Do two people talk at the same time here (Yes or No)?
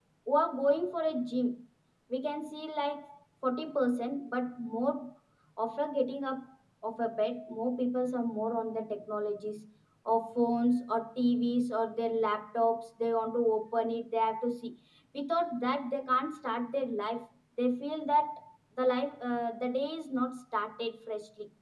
No